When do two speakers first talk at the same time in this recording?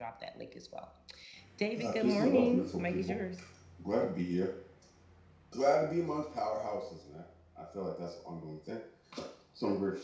1.8 s

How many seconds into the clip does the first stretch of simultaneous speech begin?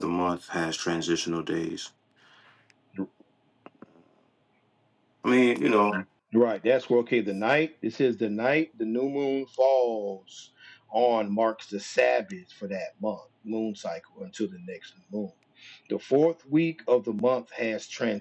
none

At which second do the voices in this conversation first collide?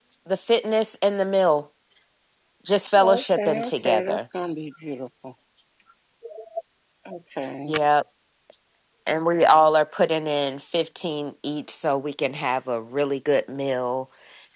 3.0 s

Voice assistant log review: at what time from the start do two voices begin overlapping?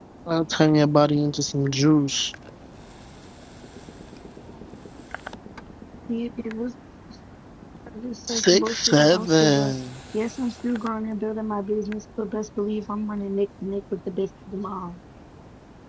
8.3 s

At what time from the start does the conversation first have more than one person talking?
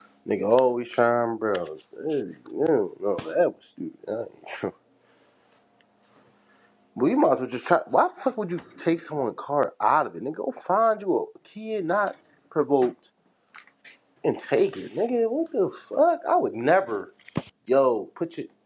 none

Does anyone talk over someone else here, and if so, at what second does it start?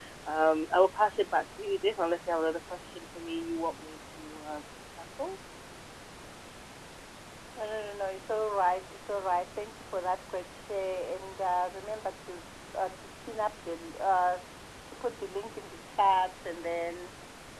none

